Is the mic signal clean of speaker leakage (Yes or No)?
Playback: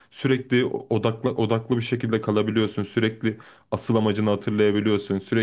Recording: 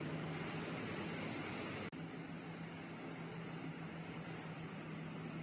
Yes